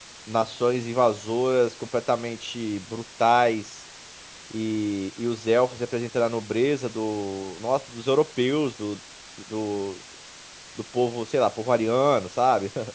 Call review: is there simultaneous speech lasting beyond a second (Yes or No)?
No